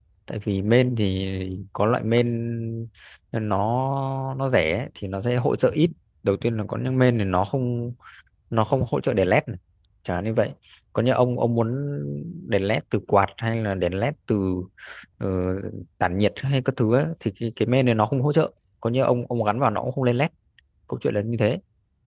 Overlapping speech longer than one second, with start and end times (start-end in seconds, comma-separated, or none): none